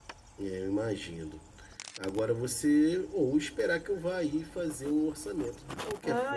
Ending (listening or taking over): taking over